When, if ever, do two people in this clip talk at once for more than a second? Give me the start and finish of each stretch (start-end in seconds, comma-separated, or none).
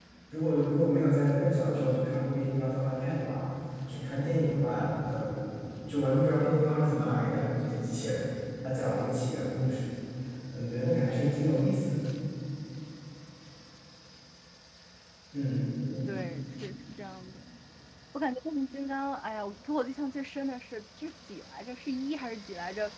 none